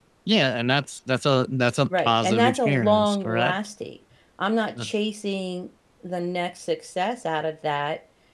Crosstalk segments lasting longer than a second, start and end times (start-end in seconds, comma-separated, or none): 2.1-3.5